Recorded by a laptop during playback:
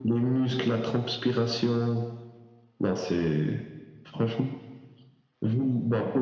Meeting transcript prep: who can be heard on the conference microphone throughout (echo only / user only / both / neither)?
echo only